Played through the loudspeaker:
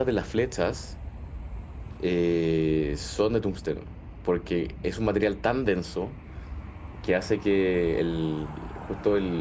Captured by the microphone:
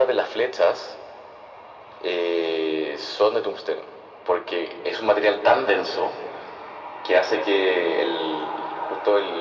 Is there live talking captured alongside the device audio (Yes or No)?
No